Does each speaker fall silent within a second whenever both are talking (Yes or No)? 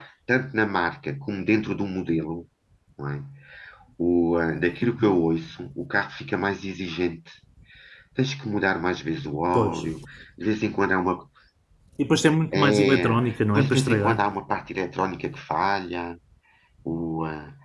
No